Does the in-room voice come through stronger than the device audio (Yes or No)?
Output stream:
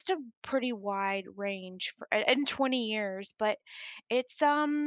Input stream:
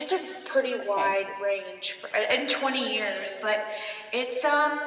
No